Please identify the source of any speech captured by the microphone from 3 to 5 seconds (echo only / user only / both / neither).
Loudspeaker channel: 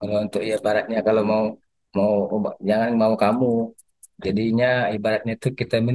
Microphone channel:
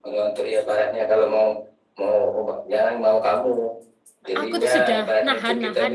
both